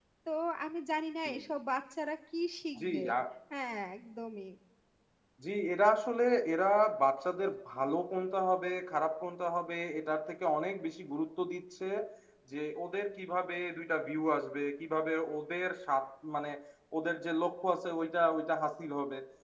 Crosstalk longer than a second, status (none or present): none